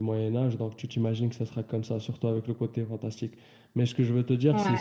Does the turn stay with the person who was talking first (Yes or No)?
Yes